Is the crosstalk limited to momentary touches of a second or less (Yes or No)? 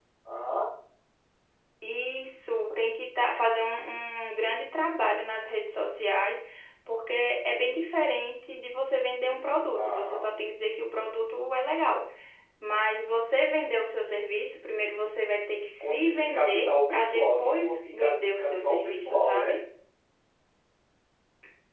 No